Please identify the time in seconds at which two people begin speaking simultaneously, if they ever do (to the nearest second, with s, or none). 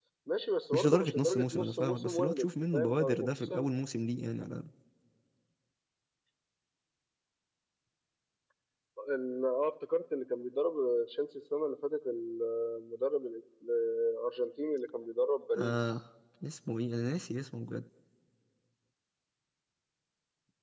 1 s